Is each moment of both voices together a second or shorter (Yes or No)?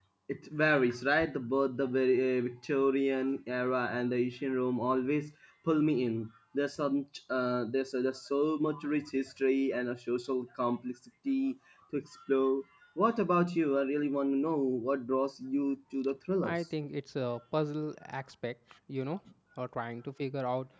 Yes